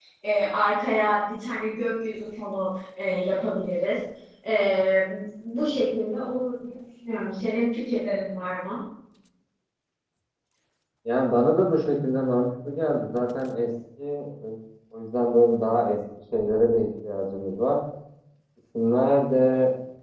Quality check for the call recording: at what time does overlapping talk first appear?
none

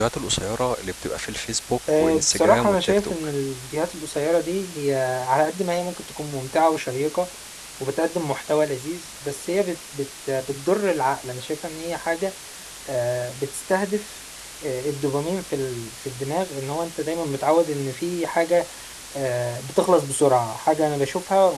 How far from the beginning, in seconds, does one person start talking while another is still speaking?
2 s

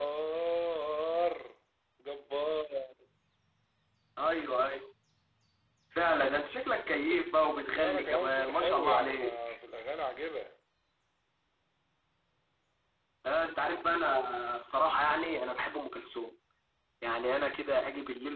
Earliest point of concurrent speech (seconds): 8 s

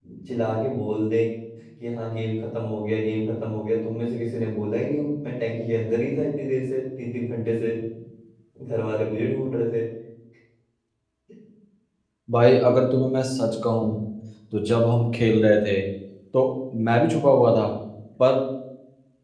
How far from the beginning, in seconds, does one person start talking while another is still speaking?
none

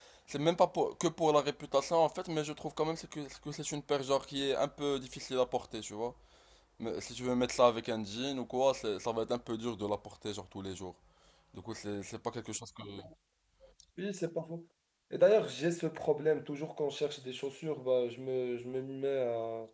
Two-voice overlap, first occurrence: none

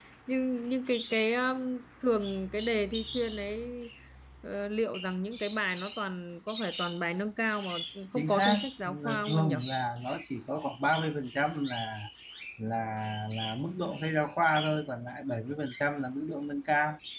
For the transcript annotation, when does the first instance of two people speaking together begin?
8 s

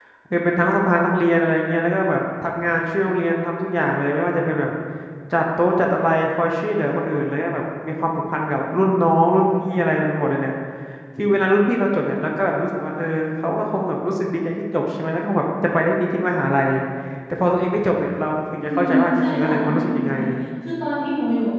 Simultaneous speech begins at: 19 s

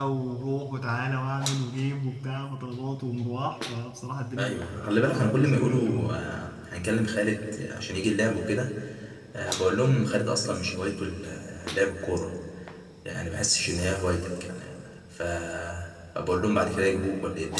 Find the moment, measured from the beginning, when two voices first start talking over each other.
4 s

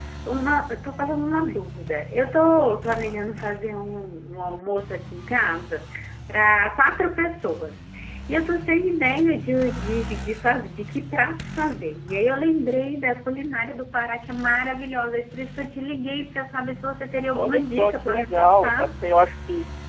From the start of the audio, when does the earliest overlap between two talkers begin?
17 s

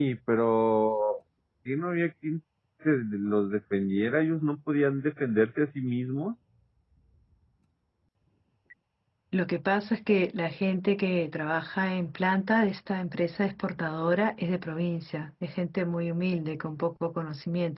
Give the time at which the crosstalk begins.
none

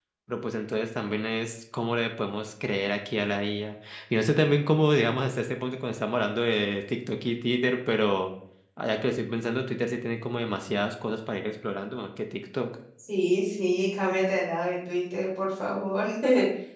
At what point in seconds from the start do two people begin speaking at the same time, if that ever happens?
none

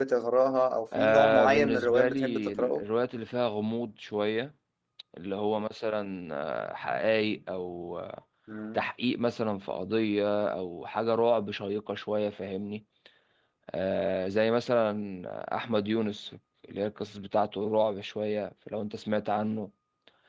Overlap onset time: 1 s

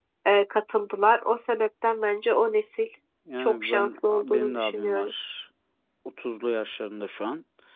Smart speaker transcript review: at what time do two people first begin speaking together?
3 s

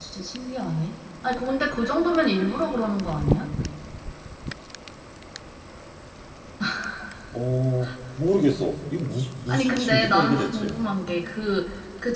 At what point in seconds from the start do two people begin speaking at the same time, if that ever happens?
9 s

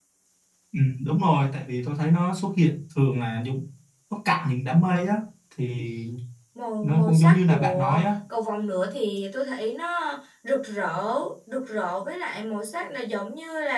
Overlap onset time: 7 s

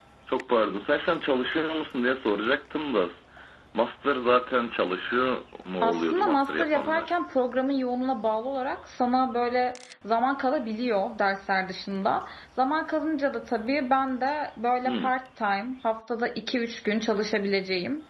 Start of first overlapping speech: 6 s

